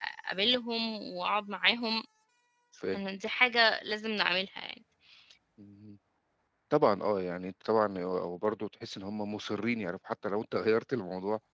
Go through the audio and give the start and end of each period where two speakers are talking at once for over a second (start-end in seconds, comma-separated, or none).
none